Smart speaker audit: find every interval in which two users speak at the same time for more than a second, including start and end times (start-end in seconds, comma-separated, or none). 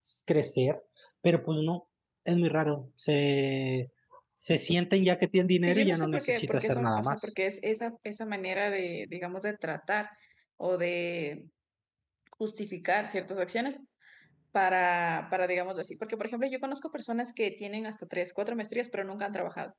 5.7-7.3